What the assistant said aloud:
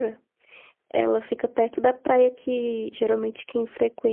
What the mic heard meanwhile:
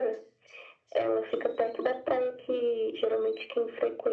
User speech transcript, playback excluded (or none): none